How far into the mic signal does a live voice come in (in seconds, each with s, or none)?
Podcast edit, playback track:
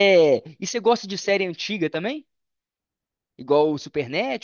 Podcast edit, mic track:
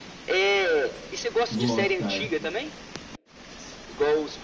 1.5 s